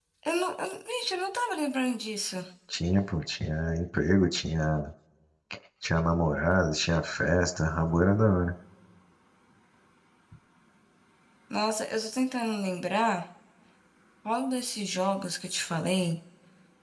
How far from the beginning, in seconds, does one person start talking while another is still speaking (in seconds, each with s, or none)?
none